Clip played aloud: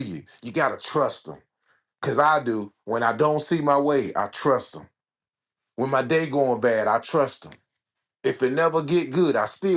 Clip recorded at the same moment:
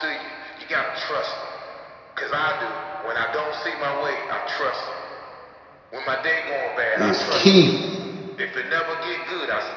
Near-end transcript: is key.

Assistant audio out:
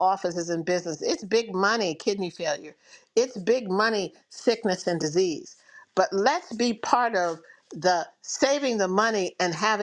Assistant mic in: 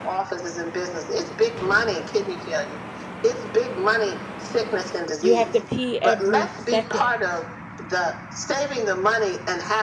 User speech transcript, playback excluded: you have to pee every second.

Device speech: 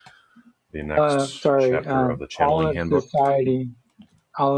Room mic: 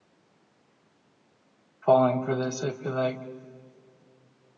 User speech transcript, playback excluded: falling for this, I feel like.

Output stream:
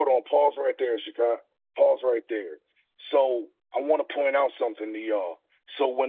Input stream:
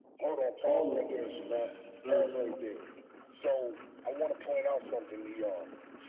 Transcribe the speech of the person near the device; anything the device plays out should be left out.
all of them in the land, serve me.

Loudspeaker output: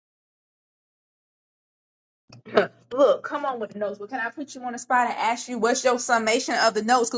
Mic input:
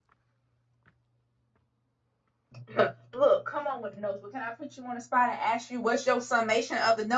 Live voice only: none

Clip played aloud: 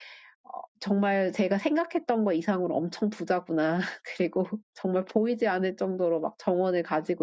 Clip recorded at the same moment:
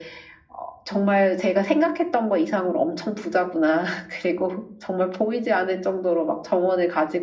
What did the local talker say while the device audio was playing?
none

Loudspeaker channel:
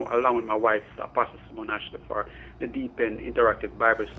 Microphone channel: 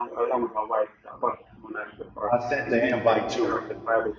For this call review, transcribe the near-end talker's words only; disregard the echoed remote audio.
I sent the invite to her.

